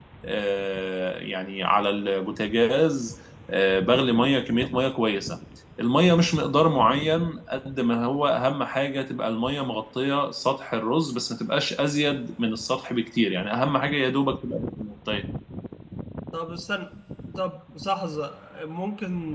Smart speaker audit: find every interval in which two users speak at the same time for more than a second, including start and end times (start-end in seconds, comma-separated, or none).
none